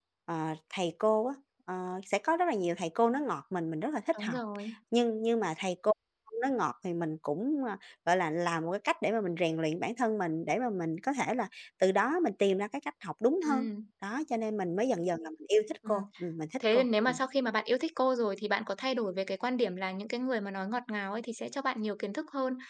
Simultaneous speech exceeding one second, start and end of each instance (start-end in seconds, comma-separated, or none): none